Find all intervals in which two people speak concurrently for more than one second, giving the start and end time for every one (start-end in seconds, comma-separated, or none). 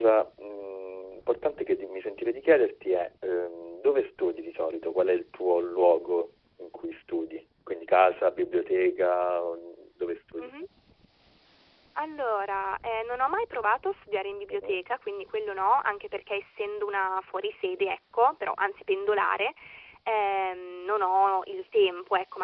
none